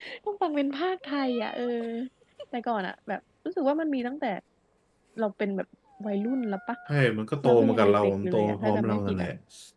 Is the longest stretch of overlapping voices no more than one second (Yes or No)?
No